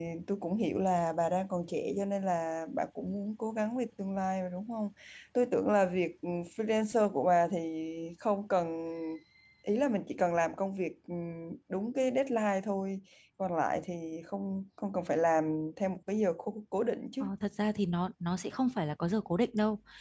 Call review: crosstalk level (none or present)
none